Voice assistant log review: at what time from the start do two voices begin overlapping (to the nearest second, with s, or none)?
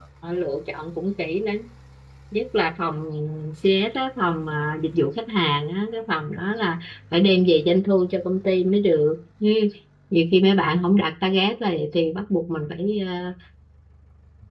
none